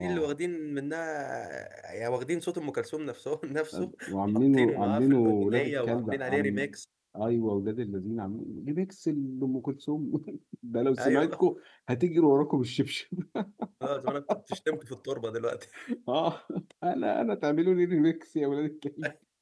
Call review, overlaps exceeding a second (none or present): present